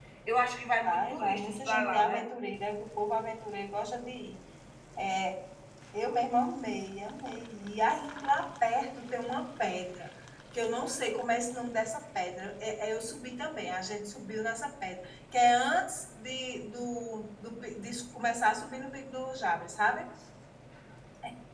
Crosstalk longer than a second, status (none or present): present